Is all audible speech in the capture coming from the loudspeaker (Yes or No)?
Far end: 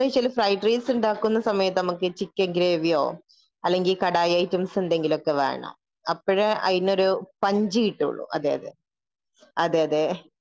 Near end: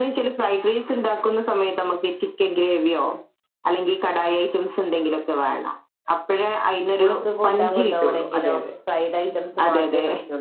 No